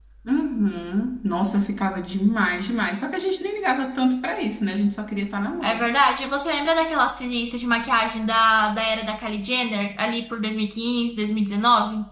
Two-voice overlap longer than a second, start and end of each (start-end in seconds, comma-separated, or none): none